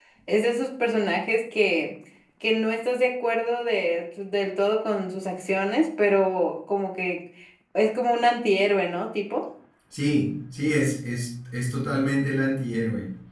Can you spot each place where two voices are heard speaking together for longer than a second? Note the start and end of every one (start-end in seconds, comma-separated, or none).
none